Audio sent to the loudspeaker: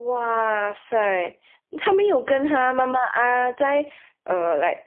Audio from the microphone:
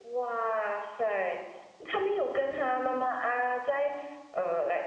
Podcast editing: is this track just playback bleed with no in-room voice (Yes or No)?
Yes